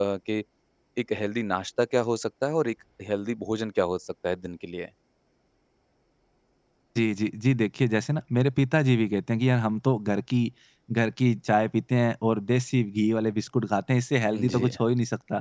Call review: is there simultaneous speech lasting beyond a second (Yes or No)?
No